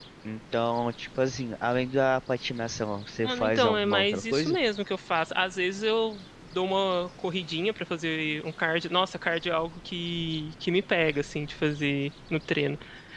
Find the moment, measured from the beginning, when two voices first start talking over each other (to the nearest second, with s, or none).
3 s